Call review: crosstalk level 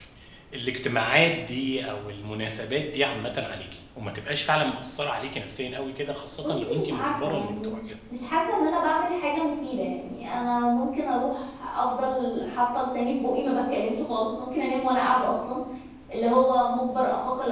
present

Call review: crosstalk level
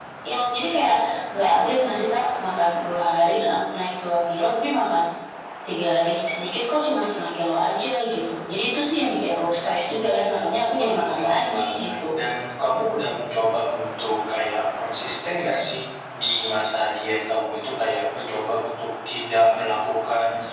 present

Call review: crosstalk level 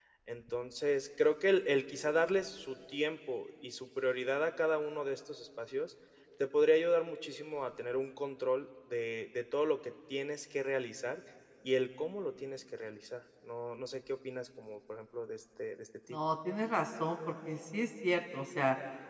none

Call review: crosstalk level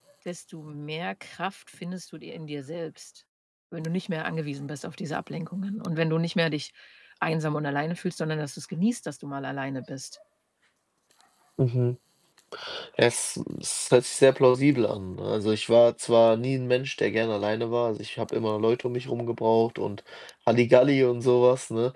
none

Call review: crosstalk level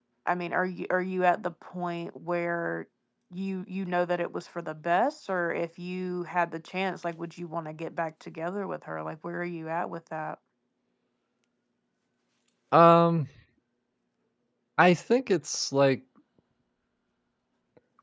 none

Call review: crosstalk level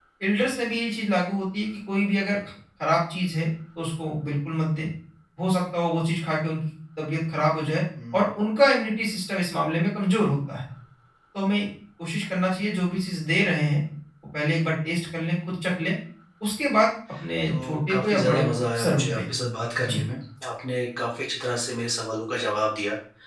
present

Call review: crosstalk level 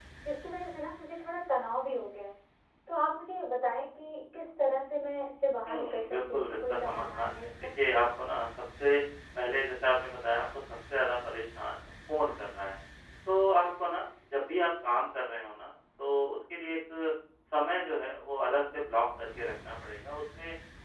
present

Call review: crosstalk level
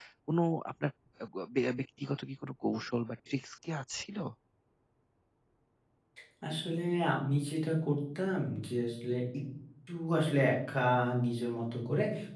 none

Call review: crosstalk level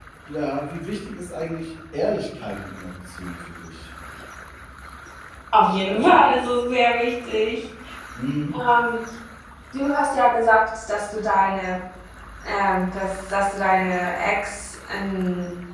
none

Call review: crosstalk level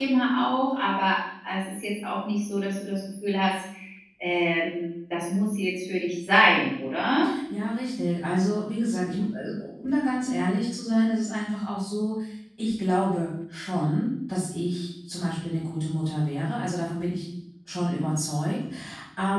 none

